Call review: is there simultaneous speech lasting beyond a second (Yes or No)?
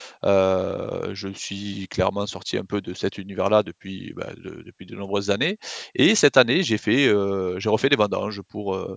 No